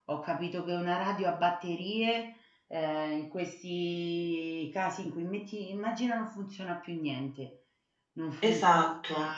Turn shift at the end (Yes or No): No